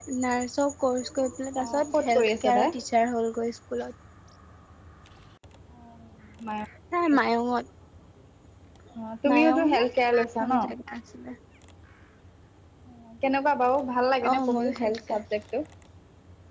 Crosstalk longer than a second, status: present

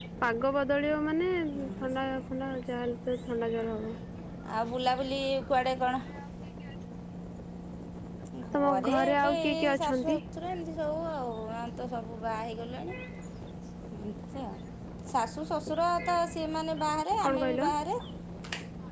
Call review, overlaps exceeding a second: present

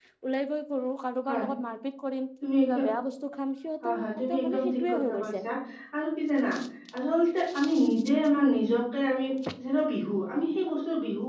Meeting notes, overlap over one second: present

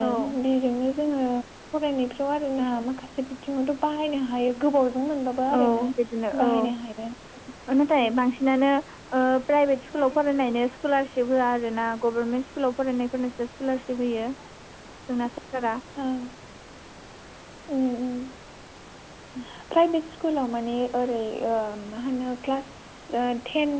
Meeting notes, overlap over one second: none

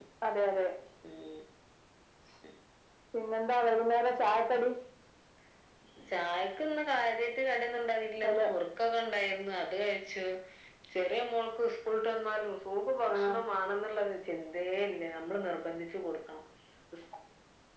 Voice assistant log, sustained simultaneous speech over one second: none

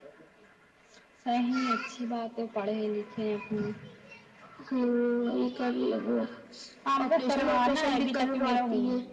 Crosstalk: present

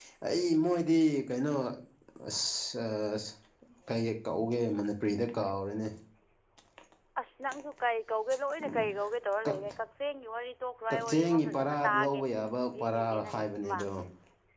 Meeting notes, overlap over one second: present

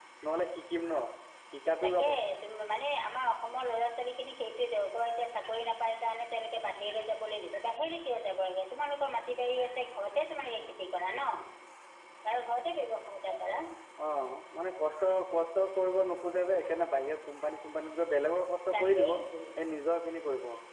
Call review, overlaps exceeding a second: none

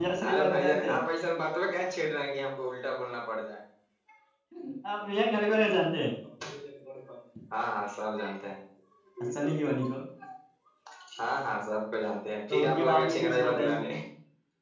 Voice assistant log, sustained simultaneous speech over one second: present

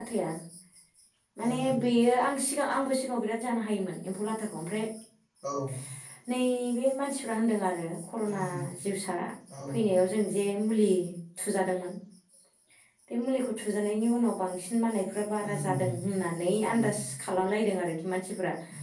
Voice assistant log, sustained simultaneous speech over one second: none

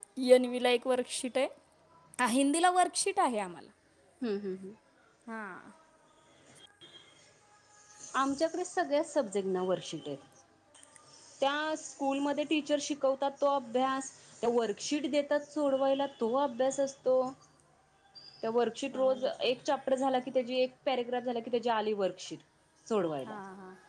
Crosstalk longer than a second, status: none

